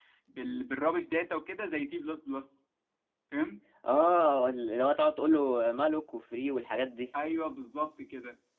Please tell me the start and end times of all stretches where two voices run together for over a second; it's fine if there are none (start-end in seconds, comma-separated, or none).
none